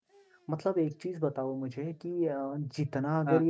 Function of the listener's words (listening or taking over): listening